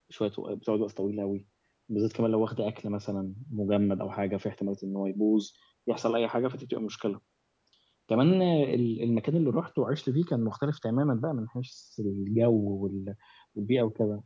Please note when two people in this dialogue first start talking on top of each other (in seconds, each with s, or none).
none